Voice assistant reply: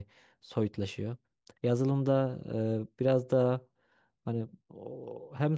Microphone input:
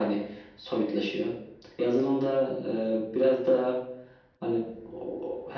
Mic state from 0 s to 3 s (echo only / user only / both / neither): echo only